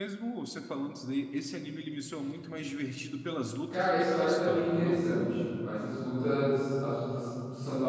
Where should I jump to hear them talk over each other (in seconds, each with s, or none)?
3.7 s